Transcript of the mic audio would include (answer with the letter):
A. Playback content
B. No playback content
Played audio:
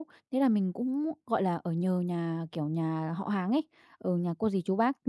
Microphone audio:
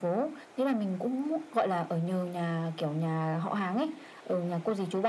A